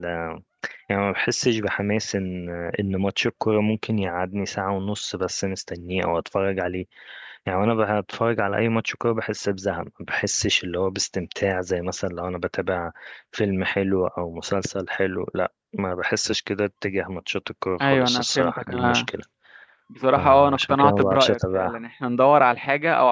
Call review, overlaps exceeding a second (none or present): present